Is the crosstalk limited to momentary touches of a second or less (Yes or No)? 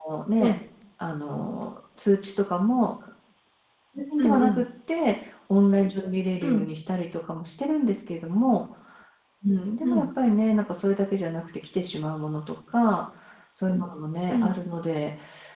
Yes